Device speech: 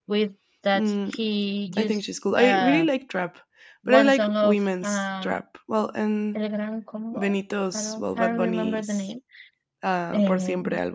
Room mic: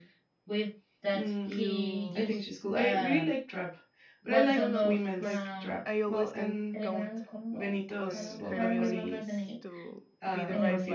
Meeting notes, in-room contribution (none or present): present